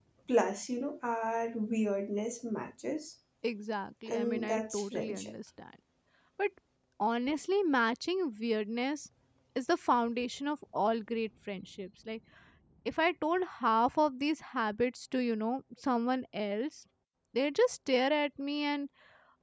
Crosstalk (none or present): present